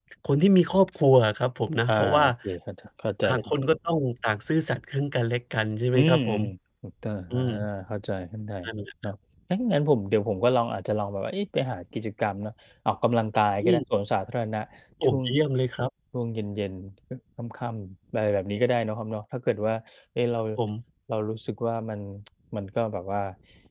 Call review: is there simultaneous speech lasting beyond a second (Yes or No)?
No